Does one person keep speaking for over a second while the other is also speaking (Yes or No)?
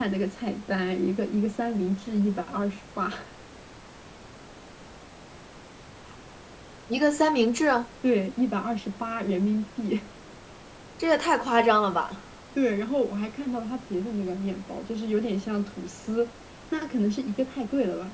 No